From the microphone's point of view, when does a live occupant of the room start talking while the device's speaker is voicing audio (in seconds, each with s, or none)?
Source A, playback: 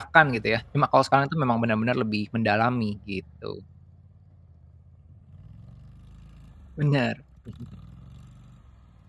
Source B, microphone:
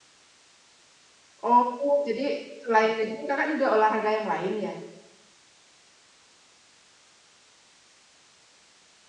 1.4 s